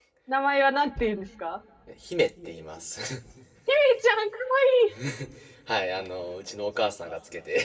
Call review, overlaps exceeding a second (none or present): none